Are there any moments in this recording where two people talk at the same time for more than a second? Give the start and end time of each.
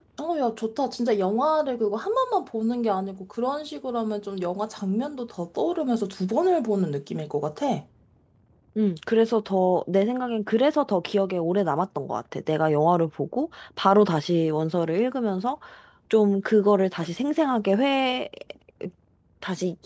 none

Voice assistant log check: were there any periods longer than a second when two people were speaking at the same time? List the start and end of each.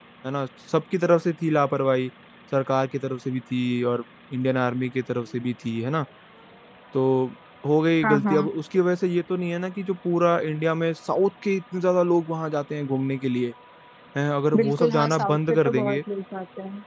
14.6-16.0

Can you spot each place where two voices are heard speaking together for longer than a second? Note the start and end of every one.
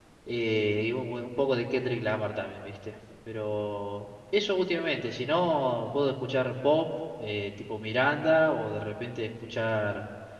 none

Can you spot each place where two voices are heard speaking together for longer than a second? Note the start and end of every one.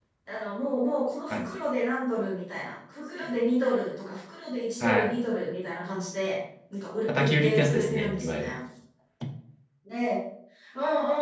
7.2-8.5

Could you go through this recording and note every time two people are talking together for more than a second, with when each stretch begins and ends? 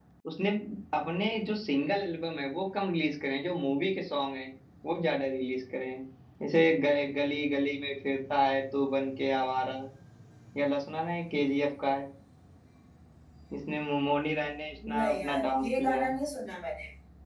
14.9-16.1

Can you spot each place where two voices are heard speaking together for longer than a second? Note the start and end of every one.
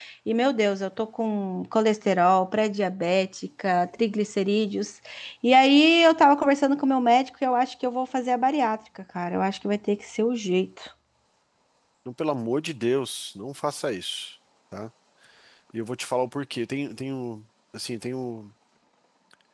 none

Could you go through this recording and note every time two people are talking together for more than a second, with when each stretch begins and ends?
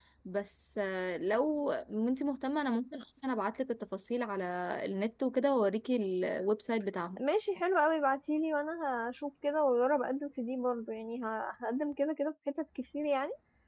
none

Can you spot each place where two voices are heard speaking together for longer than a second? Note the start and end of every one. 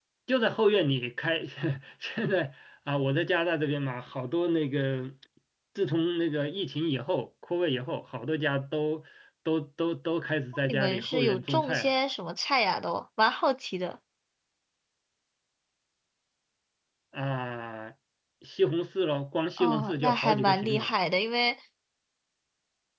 10.6-11.9, 19.6-20.9

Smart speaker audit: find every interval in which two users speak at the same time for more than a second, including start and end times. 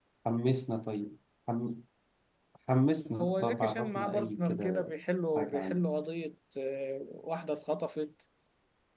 3.2-4.9

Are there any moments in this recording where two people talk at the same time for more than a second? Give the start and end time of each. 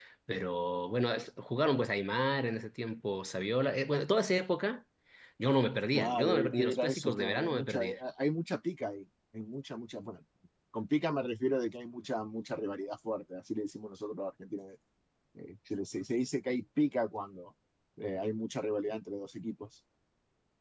5.9-7.8

